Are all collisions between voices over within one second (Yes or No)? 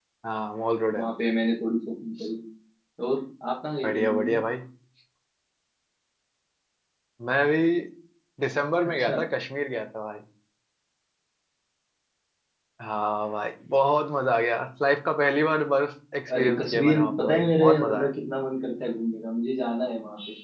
No